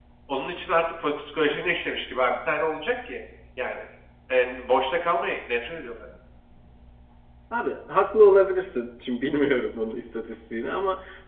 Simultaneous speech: No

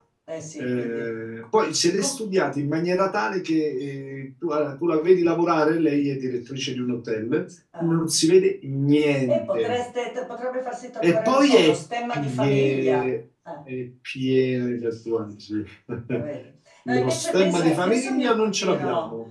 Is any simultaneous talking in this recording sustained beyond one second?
Yes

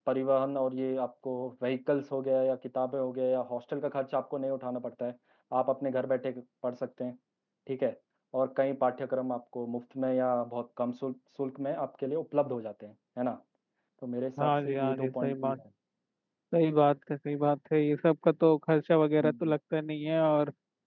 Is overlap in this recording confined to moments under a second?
No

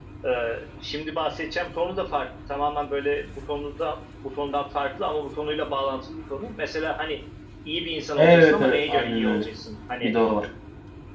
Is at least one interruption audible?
Yes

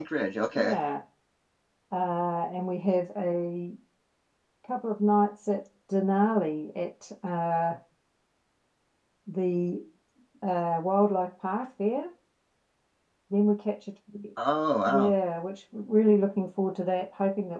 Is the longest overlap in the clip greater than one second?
No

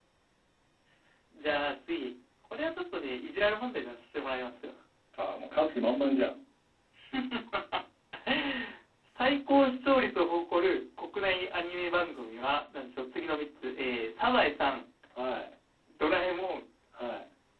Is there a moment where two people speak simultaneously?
No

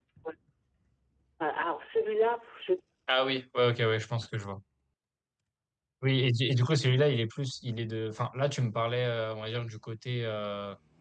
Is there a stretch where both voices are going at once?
No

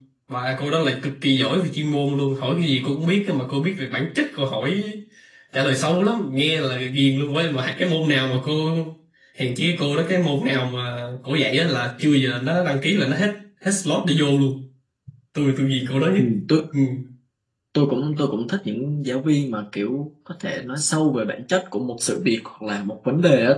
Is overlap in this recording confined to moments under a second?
Yes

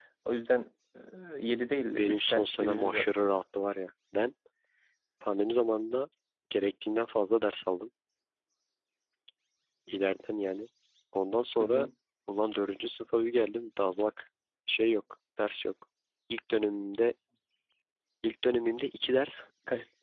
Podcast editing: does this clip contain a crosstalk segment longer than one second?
Yes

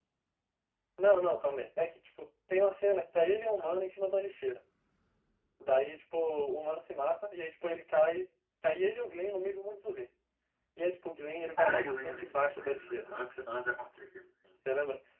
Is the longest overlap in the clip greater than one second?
Yes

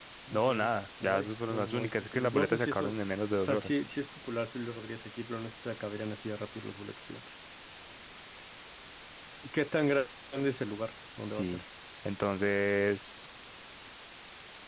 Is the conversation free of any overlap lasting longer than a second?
No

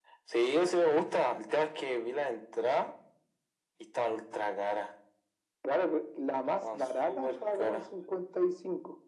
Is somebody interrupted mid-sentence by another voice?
Yes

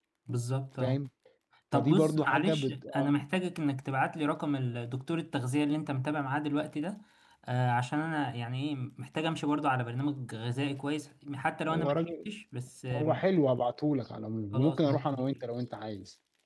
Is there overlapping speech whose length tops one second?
Yes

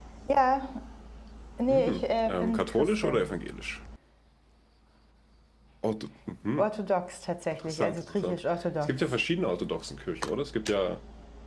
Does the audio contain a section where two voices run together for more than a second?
Yes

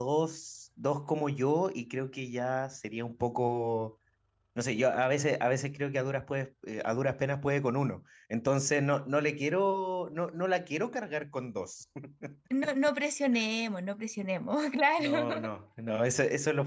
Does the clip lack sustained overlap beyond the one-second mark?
Yes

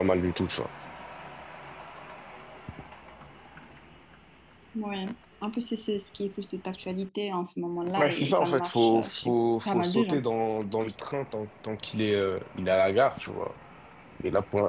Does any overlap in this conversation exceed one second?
Yes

